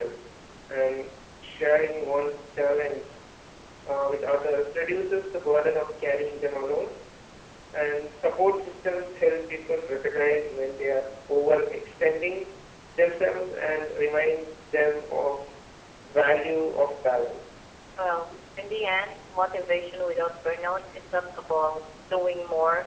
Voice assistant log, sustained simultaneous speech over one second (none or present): none